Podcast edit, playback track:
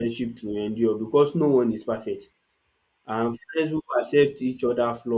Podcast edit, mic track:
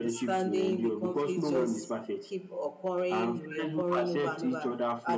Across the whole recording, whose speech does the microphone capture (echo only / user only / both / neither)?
both